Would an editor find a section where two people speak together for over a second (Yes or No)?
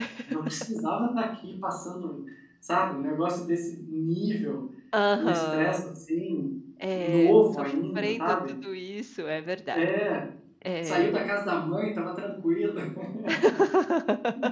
Yes